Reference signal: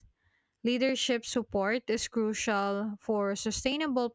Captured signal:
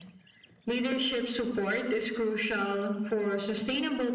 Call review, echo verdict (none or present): present